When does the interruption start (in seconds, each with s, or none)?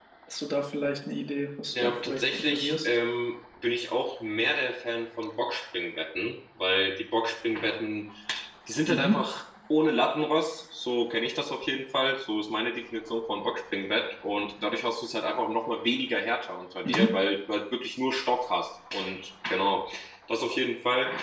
1.7 s